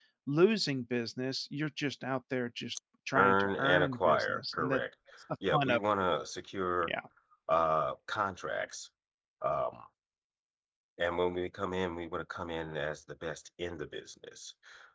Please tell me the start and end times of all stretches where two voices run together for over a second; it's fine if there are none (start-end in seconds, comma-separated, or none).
3.2-4.8